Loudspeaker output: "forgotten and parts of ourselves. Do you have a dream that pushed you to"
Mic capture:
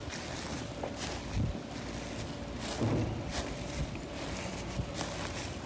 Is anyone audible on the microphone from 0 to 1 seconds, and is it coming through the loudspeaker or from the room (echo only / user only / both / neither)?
neither